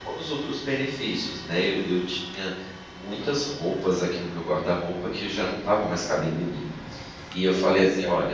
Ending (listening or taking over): listening